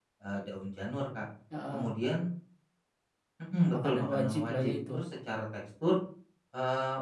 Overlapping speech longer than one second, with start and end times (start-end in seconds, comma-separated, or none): 3.7-5.0